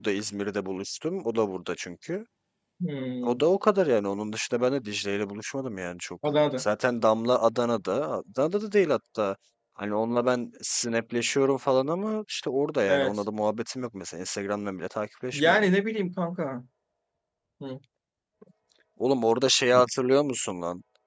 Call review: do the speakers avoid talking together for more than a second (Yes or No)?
Yes